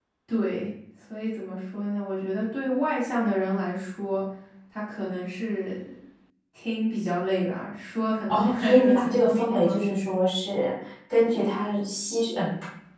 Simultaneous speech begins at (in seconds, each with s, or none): 8.3 s